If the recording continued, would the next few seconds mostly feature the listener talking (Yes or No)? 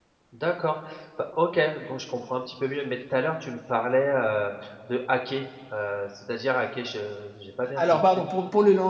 Yes